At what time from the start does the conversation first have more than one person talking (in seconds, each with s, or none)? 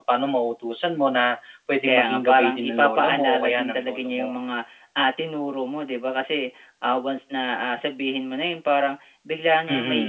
1.9 s